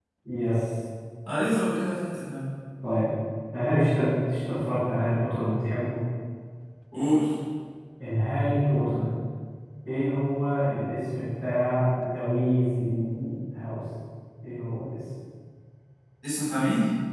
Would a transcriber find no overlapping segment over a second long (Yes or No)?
Yes